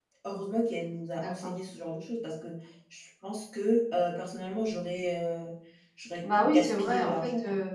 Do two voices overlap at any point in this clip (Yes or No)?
Yes